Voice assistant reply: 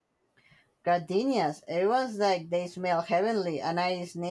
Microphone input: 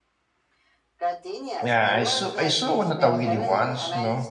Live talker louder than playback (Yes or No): Yes